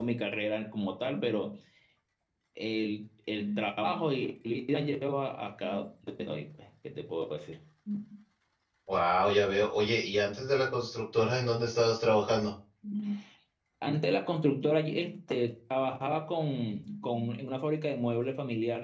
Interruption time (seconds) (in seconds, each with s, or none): none